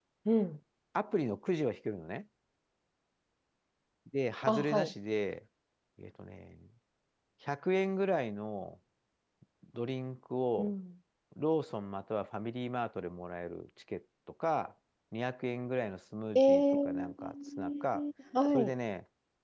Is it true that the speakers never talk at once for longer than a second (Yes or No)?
No